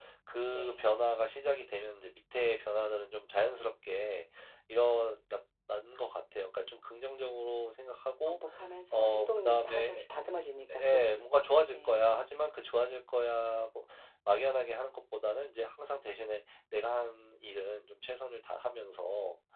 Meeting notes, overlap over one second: present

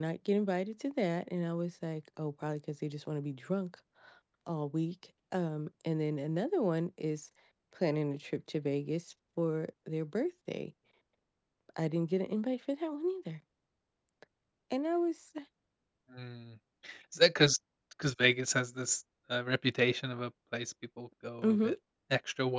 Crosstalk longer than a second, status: none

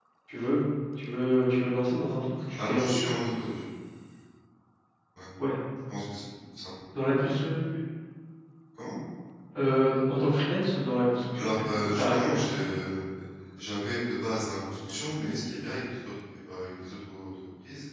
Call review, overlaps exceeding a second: present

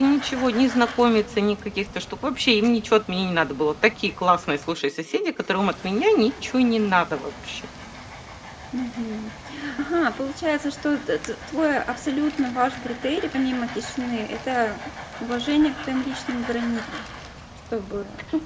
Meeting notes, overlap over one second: none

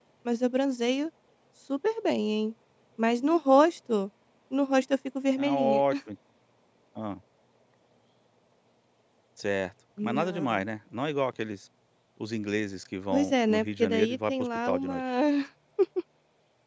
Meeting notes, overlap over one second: present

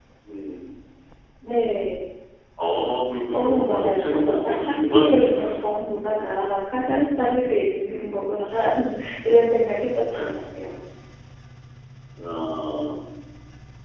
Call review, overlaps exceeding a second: present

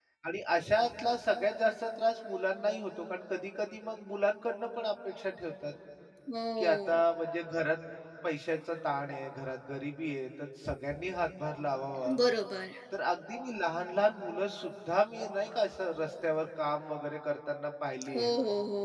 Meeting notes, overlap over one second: none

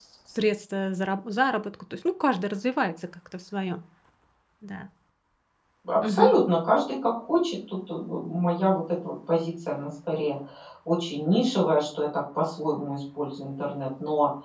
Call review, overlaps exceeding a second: none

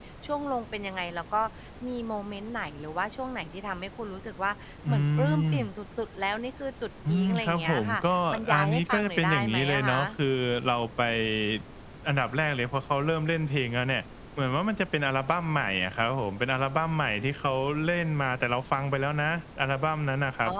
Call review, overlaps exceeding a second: present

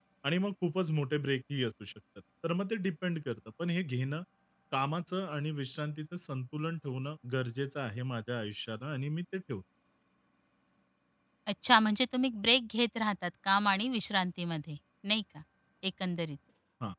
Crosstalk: none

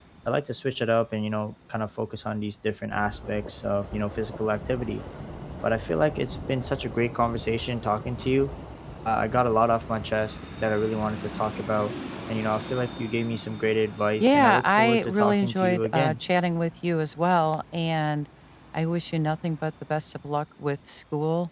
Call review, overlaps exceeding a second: present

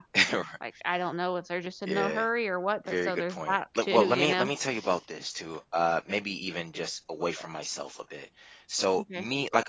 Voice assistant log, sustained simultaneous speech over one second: present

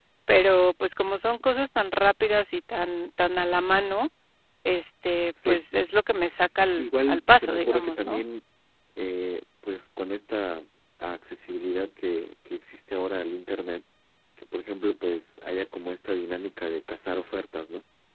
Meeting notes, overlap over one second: present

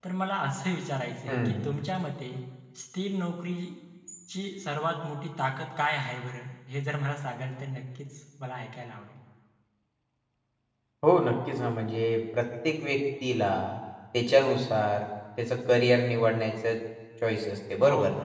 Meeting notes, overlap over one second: none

